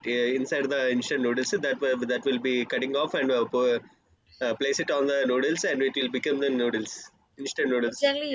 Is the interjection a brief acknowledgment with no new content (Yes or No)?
No